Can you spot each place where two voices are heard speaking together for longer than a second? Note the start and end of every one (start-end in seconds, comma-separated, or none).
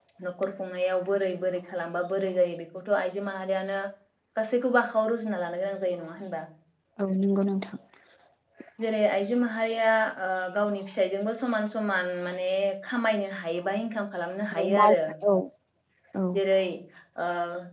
none